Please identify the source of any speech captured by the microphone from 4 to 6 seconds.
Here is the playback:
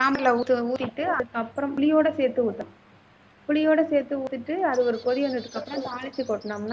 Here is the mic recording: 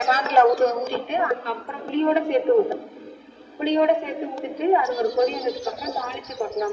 echo only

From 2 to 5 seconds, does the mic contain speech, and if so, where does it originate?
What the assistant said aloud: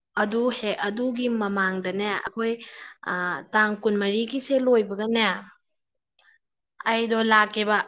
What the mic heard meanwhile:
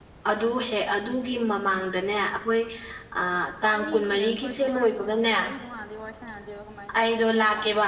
both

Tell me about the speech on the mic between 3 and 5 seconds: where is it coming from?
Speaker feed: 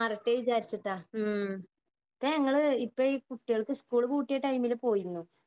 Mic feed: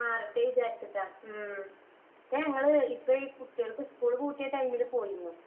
echo only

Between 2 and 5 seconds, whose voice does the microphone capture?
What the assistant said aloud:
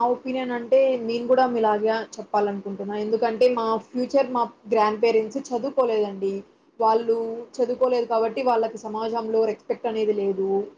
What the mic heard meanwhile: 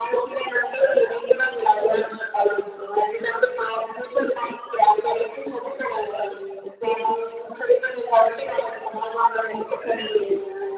echo only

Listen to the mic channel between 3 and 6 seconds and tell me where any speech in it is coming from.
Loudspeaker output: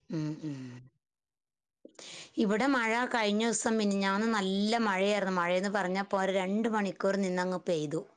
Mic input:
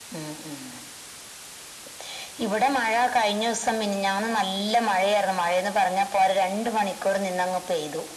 echo only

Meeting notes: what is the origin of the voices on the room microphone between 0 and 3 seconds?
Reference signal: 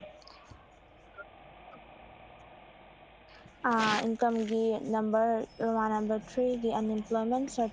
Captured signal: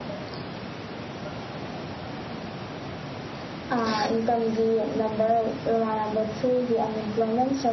neither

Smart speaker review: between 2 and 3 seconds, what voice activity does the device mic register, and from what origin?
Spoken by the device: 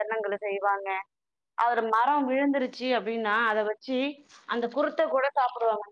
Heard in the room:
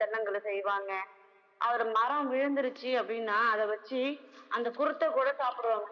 echo only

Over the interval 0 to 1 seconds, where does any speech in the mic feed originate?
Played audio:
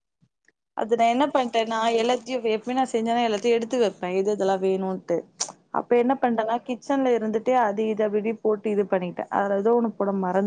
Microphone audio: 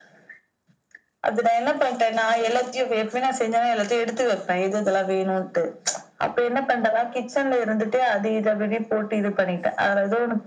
neither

